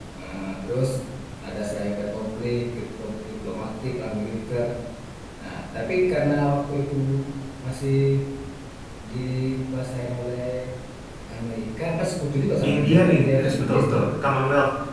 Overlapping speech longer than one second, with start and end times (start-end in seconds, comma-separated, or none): 12.7-14.0